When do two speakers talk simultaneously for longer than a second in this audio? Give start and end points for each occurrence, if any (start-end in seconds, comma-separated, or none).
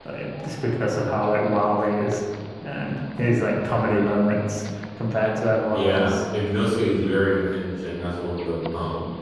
none